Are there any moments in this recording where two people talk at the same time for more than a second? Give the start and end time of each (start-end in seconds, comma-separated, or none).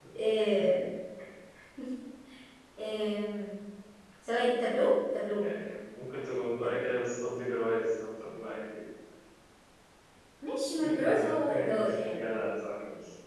10.8-12.2